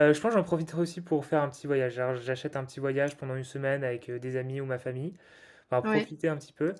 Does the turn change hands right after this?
No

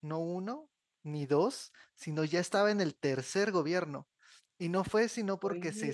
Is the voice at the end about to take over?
No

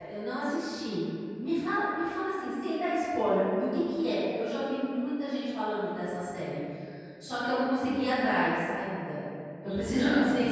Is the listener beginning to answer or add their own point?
No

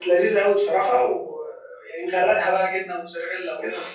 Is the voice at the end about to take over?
Yes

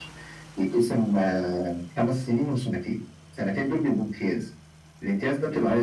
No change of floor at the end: Yes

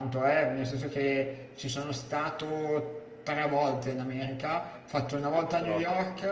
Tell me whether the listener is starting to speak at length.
No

